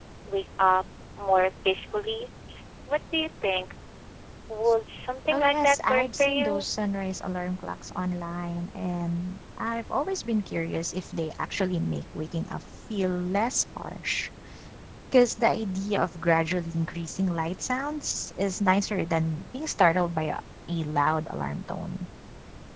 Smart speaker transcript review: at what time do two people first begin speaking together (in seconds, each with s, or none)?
5.3 s